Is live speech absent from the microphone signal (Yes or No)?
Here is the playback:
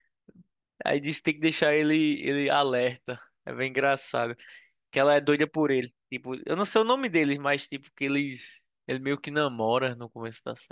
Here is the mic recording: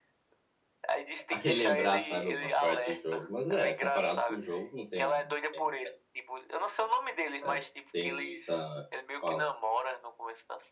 No